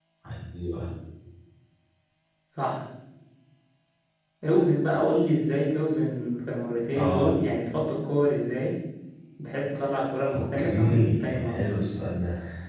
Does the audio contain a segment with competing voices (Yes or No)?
Yes